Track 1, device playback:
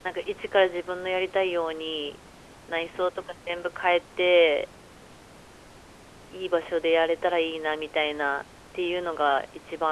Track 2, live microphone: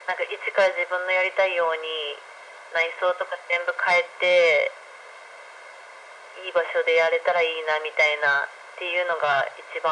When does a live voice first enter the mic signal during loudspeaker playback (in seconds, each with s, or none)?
none